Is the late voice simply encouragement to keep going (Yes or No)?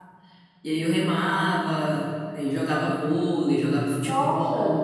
No